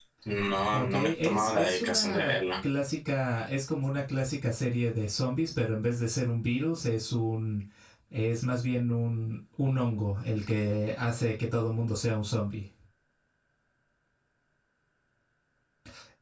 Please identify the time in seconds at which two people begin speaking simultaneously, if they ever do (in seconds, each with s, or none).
0.7 s